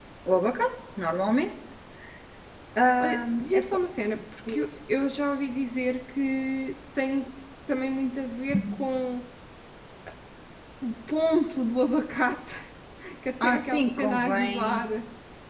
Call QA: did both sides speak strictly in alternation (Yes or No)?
No